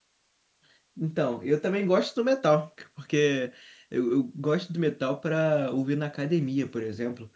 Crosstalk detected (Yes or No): No